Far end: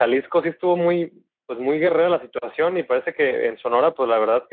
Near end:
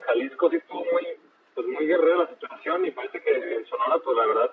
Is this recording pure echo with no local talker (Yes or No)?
Yes